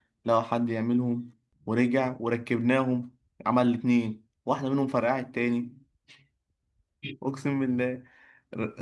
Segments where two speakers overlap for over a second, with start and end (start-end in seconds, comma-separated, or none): none